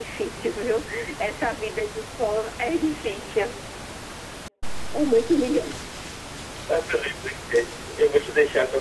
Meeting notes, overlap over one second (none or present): none